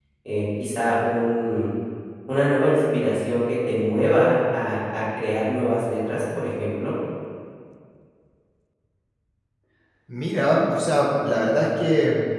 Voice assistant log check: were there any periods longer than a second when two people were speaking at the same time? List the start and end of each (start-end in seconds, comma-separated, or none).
none